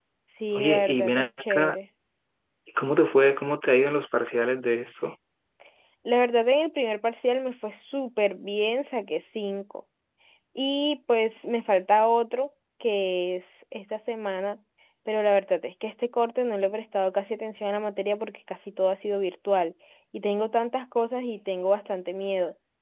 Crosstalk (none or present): present